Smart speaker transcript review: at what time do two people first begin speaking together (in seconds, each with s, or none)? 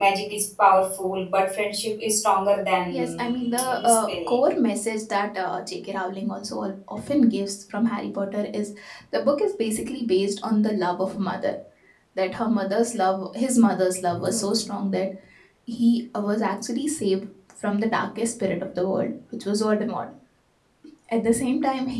2.9 s